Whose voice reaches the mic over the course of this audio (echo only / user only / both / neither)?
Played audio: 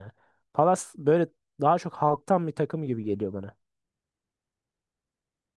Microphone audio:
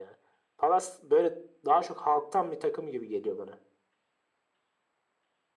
echo only